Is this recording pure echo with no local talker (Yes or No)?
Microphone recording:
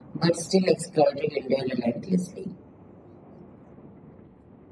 Yes